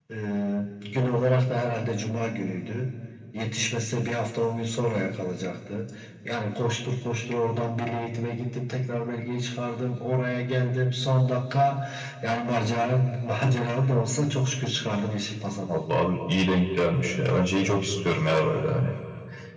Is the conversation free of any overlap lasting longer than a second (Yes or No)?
Yes